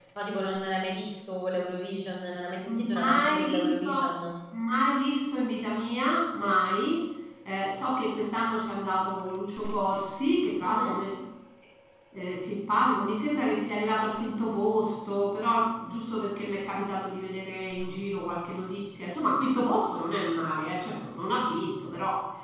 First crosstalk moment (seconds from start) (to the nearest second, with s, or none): 3 s